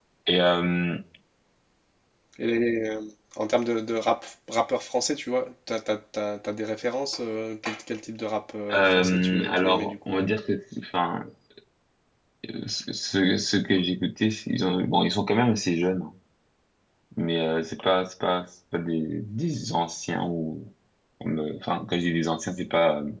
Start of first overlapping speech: 9 s

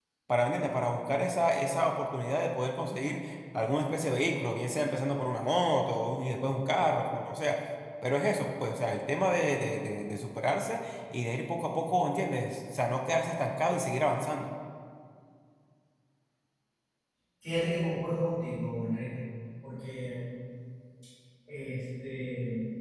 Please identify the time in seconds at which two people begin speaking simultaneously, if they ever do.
none

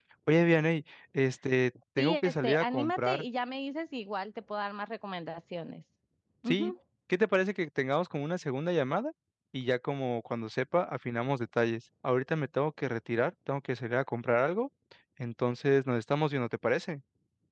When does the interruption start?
2 s

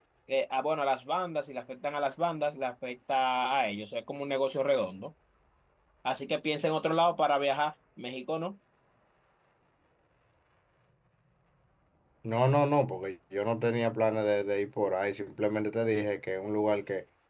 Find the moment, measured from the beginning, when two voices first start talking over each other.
none

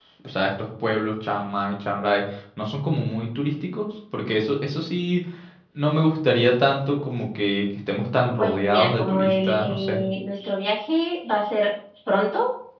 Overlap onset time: 8 s

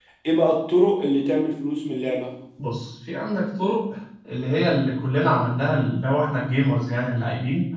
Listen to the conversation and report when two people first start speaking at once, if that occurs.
none

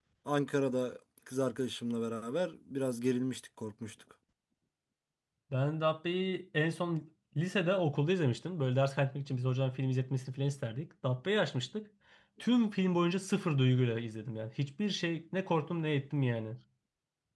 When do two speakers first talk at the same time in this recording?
none

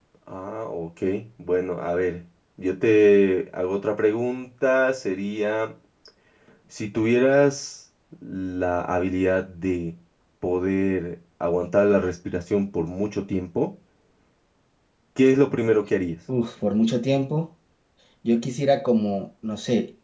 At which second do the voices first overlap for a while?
none

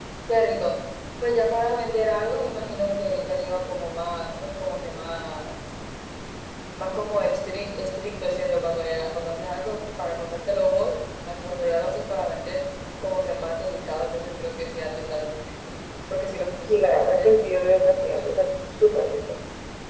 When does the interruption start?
17 s

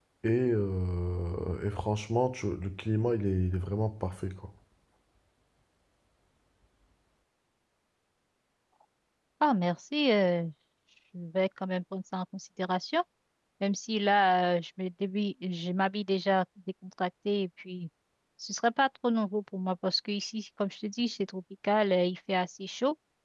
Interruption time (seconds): none

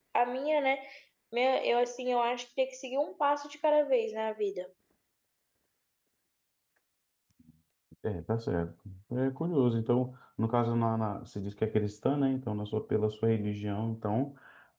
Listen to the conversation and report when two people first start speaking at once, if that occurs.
none

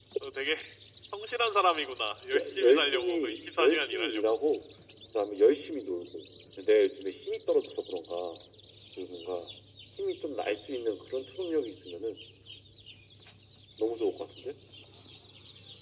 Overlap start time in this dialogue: 2 s

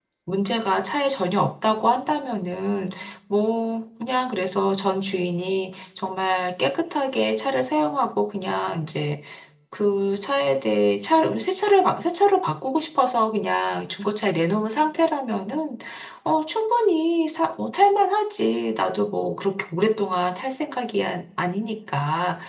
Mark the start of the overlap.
none

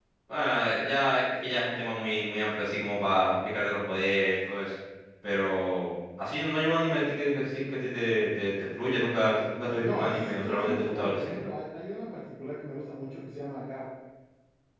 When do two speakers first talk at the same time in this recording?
10 s

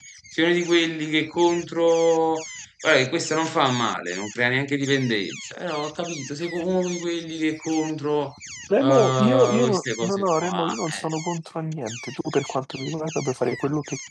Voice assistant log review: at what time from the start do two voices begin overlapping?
9 s

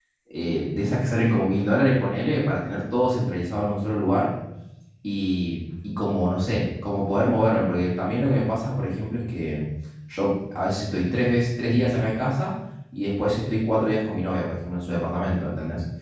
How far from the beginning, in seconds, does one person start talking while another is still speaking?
none

